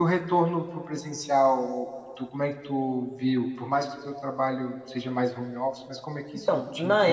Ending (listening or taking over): taking over